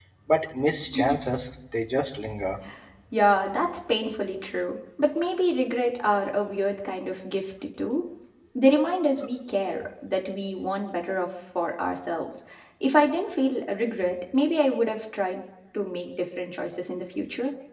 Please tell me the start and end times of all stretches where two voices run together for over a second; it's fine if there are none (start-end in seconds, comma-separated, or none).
none